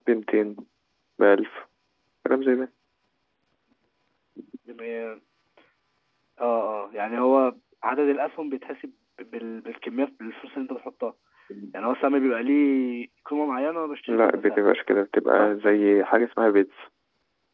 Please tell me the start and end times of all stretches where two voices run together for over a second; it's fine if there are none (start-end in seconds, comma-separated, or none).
none